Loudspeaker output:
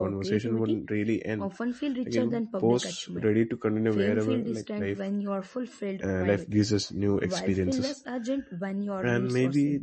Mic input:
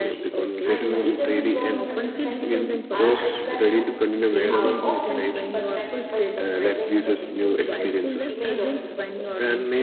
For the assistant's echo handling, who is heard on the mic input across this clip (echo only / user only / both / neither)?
both